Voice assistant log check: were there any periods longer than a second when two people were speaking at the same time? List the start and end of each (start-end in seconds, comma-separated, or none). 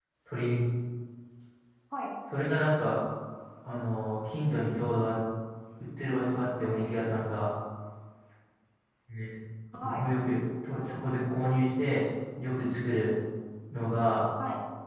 9.8-11.1